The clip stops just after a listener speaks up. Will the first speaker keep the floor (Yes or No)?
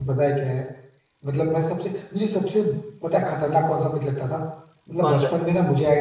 Yes